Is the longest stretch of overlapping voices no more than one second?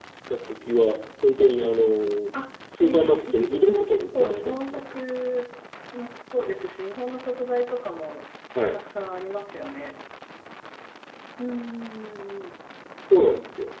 No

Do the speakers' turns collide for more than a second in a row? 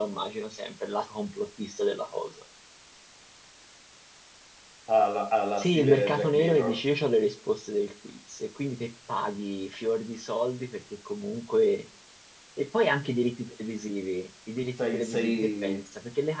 Yes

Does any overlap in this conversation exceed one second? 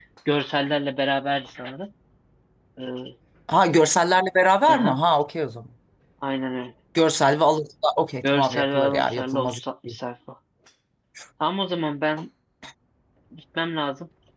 Yes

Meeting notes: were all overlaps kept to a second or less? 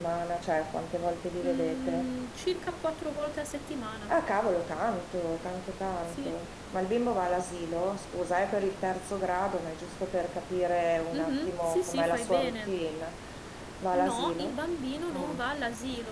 No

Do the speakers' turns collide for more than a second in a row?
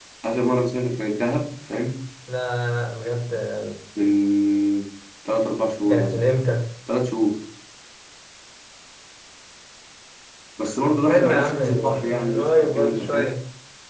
Yes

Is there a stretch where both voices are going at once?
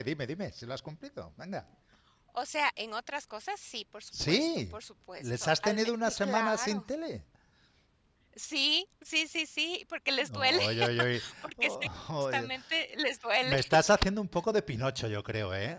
Yes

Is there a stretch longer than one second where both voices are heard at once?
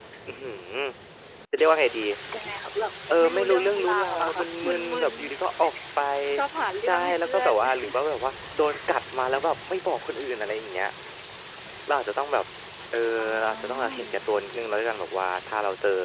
Yes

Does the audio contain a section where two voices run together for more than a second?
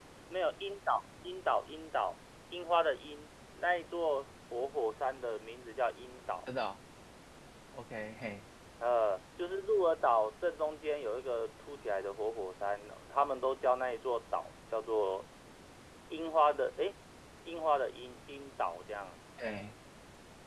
No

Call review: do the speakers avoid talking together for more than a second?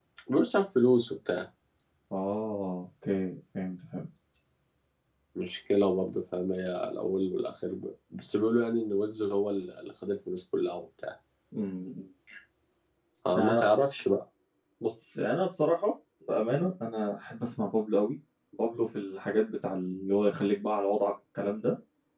Yes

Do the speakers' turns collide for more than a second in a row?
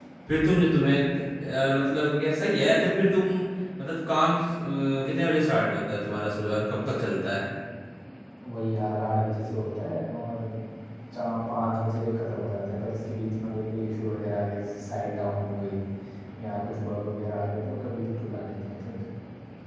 No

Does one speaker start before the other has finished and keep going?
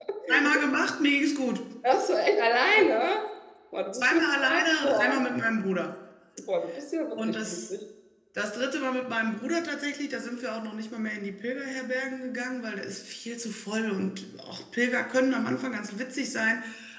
Yes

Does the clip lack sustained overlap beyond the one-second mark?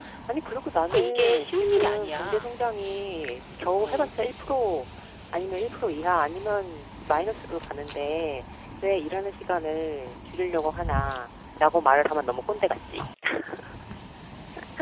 No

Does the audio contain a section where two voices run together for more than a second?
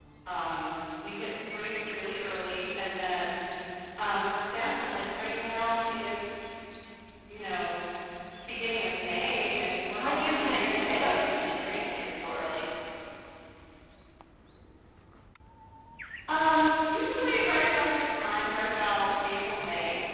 Yes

